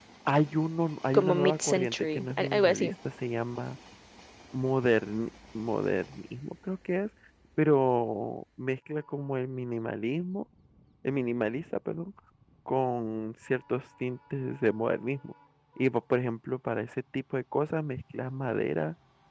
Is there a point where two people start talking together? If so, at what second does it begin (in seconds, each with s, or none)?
1.1 s